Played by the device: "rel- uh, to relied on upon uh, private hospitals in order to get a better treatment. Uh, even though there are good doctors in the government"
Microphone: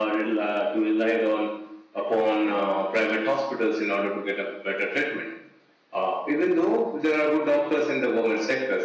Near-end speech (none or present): none